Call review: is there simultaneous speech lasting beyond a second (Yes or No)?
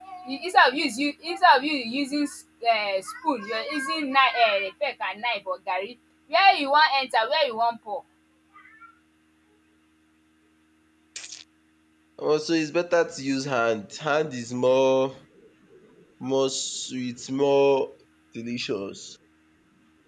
No